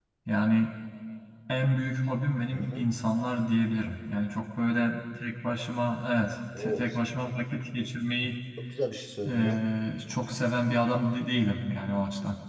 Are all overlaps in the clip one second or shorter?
Yes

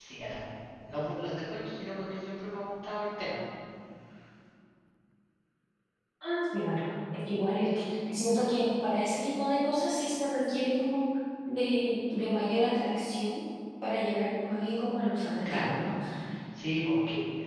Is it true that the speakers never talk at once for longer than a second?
Yes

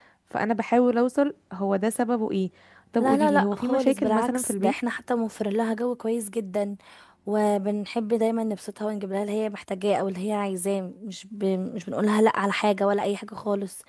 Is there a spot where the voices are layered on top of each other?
Yes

